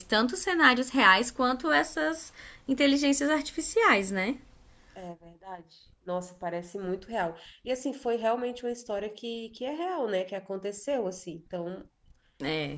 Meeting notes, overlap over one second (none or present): none